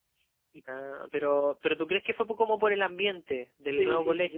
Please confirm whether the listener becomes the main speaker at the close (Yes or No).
Yes